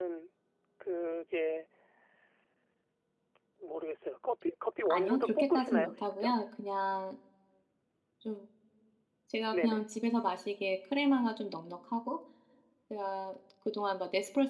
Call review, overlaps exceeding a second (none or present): present